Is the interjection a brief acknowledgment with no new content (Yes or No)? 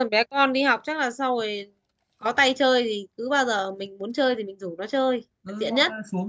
No